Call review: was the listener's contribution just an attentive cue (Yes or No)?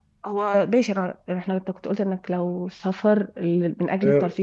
No